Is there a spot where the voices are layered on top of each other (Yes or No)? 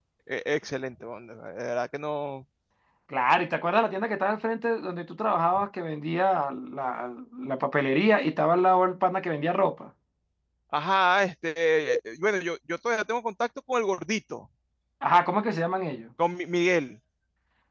No